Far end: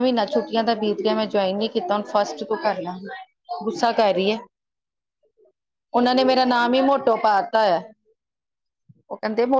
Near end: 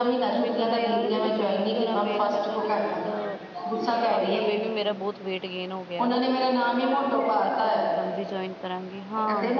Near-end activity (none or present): present